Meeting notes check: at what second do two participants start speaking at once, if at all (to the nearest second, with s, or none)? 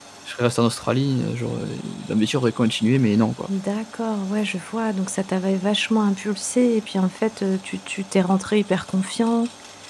none